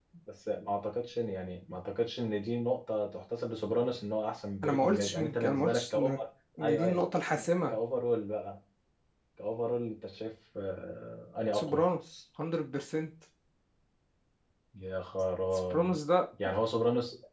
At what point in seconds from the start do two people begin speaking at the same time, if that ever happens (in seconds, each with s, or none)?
4.6 s